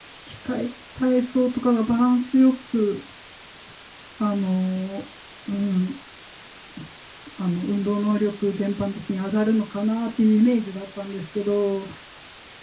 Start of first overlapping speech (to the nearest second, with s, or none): none